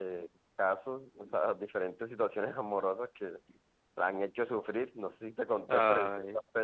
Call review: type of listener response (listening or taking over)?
listening